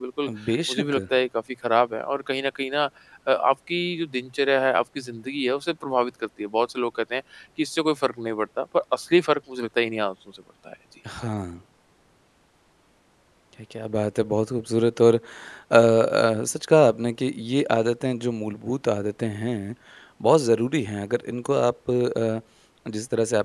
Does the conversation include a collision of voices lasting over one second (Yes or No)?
No